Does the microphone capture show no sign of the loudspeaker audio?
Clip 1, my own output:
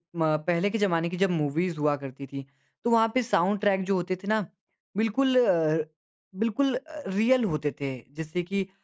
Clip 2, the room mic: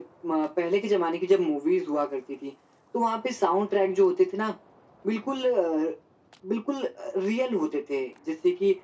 No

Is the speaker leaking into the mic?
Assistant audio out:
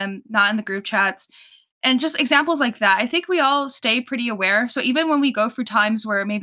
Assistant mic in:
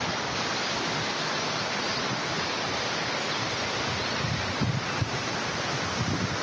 No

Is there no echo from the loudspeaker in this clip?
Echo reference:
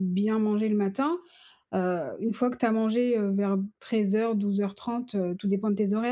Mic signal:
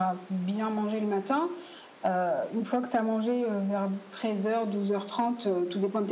No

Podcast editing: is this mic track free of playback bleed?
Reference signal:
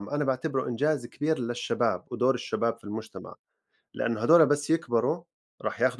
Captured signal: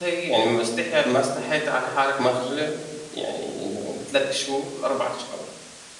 Yes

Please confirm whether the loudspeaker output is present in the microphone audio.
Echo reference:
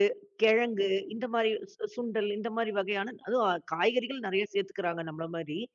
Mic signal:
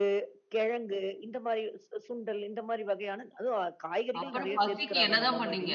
Yes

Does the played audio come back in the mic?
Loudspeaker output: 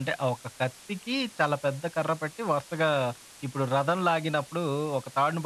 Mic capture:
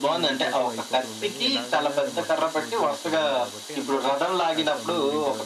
Yes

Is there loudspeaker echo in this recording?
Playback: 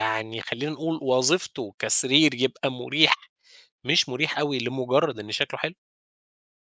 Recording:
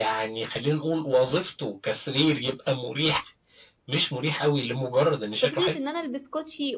Yes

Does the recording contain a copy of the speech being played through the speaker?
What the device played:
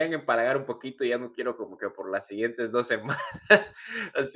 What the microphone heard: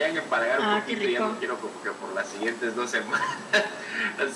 Yes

